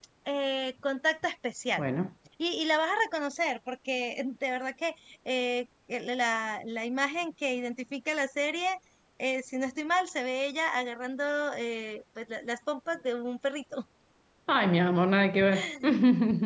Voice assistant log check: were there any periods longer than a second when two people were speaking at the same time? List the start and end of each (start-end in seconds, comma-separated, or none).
none